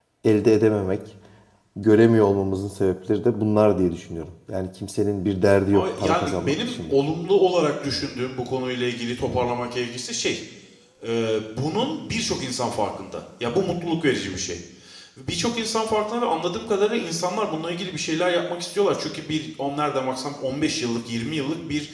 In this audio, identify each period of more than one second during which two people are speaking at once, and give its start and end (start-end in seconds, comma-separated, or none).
5.7-6.9